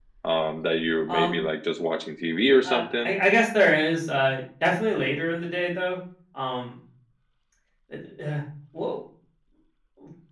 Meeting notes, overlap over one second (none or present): none